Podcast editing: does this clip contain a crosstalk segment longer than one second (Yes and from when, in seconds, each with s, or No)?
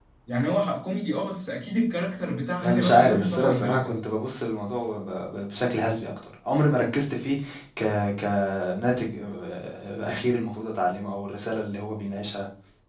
Yes, from 2.6 s